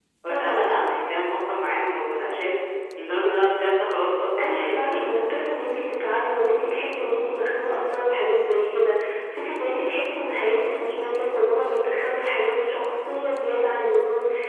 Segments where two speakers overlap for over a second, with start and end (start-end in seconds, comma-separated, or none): 4.4-5.8